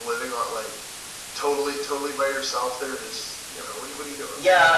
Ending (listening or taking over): taking over